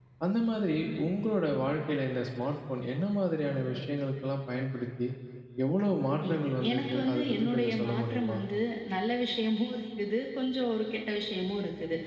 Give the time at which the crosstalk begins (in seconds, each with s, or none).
6.3 s